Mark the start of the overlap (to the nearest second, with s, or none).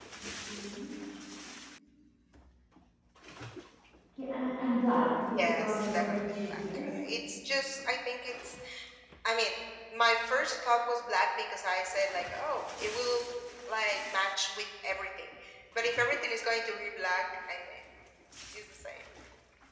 5 s